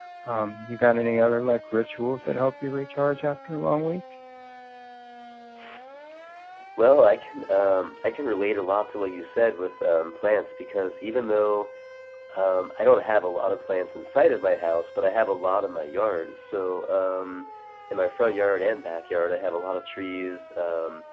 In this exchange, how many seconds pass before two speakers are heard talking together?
none

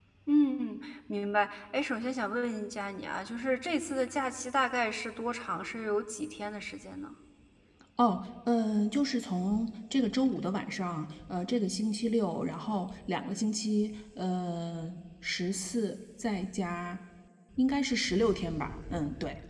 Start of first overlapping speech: none

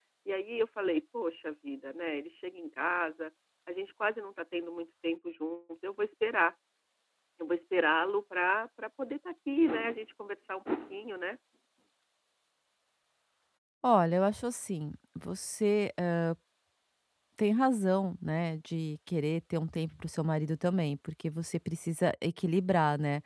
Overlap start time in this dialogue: none

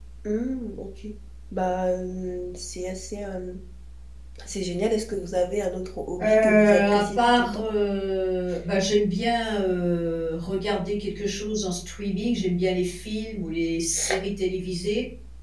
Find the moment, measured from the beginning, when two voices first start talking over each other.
6.2 s

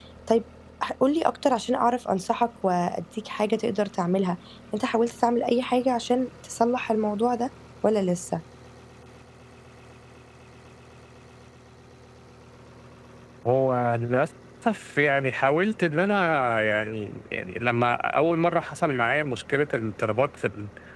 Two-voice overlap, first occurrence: none

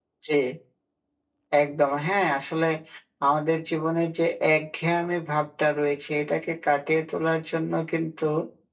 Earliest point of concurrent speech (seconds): none

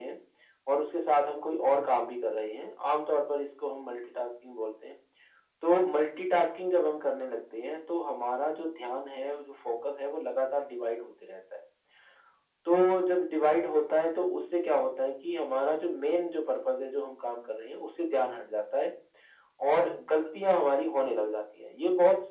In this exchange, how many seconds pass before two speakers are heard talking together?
none

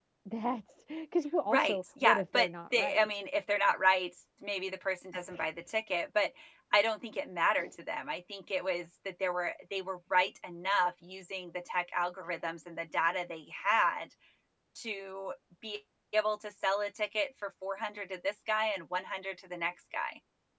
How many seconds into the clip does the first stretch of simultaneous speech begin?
1.5 s

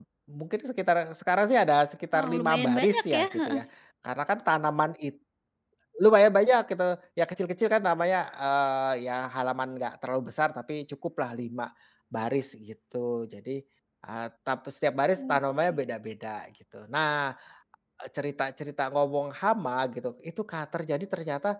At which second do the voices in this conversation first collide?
2.1 s

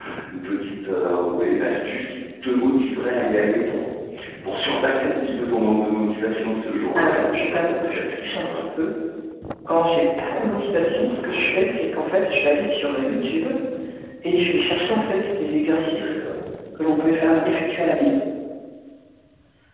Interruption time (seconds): 7.0 s

